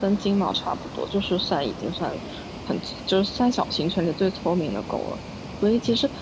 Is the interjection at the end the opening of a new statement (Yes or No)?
No